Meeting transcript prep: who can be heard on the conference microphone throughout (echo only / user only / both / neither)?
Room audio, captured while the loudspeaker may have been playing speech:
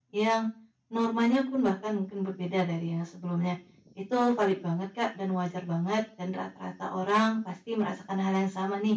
user only